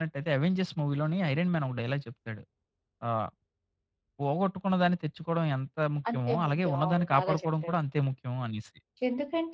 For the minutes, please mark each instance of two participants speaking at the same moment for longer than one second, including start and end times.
6.1-7.8

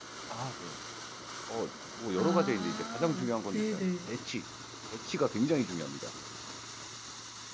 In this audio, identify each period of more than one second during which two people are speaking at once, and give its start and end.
2.1-4.1

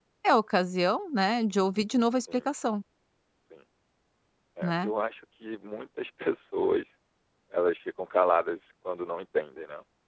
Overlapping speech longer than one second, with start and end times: none

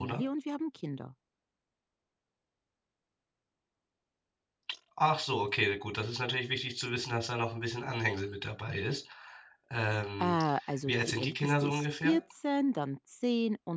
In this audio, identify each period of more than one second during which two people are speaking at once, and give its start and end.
10.9-12.2

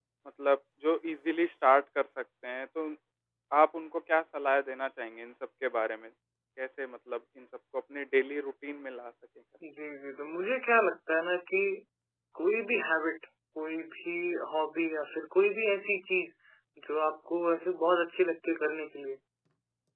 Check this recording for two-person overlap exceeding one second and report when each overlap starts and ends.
none

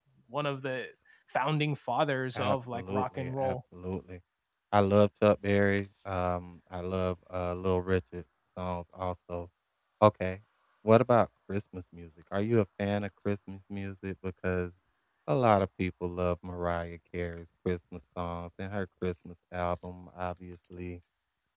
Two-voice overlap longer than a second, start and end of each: 2.4-3.6

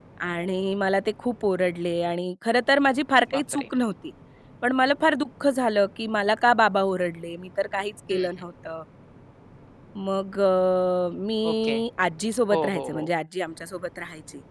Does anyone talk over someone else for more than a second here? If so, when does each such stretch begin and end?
none

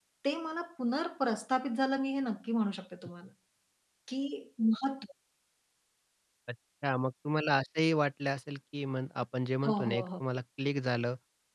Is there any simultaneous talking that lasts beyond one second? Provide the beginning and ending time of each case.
none

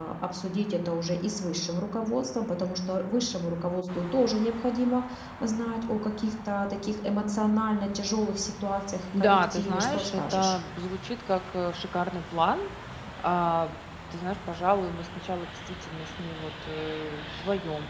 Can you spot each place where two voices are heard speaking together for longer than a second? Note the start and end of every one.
9.2-10.6

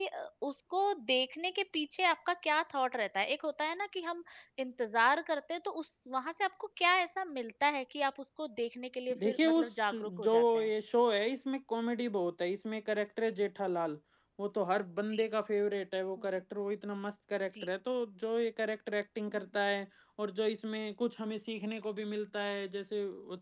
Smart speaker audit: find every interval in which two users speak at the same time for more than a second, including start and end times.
9.2-10.6

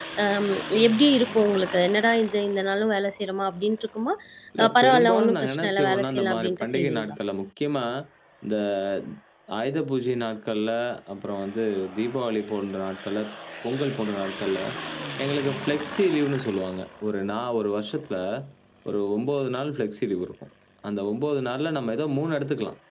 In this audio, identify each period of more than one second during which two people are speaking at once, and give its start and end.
4.6-7.2

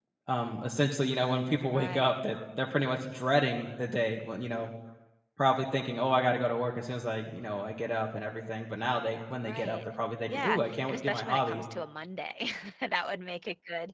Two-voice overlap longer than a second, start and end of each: 10.3-11.6

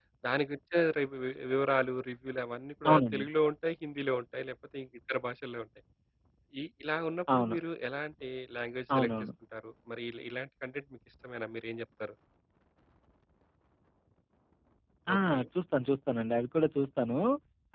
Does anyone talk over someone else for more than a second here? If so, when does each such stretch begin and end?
none

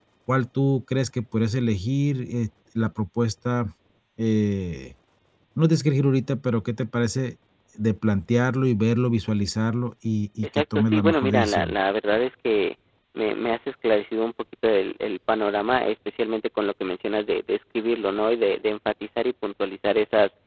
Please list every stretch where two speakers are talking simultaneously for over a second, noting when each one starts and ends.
10.6-11.8

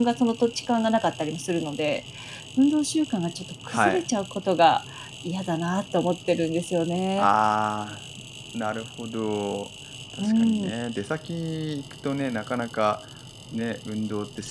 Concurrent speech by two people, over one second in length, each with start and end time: none

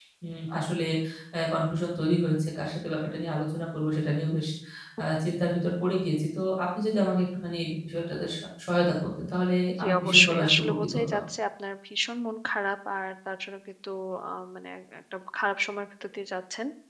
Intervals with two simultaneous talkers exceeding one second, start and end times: 9.8-11.0

